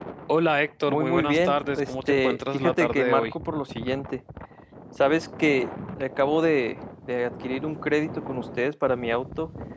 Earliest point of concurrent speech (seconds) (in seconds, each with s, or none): 0.9 s